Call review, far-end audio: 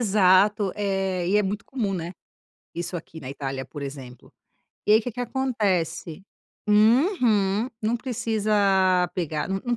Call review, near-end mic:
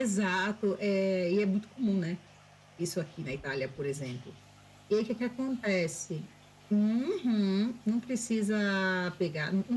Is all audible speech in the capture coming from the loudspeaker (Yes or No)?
Yes